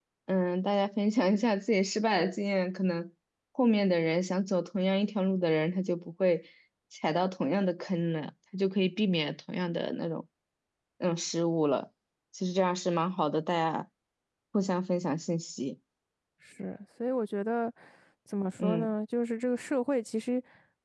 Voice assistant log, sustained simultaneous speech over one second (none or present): none